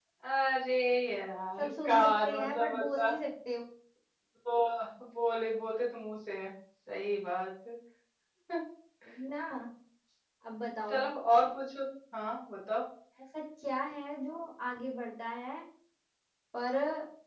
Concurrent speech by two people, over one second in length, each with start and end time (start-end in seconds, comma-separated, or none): 1.6-3.1